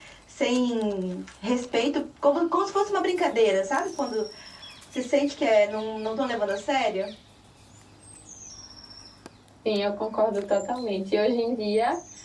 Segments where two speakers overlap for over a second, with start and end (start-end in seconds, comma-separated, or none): none